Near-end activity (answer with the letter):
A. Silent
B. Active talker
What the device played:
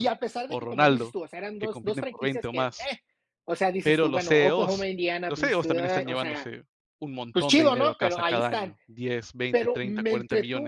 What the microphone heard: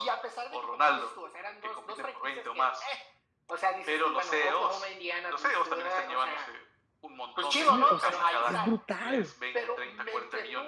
B